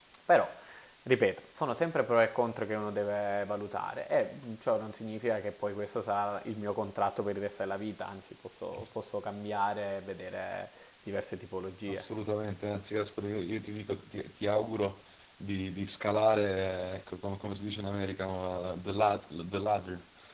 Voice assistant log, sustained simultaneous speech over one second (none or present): none